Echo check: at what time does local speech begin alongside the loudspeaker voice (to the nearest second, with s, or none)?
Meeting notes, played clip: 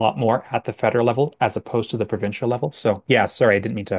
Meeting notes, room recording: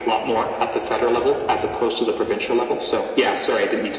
none